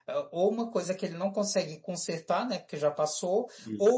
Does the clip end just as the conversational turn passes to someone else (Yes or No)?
No